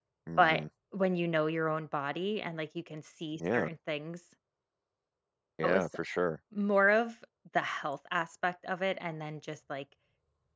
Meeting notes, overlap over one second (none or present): none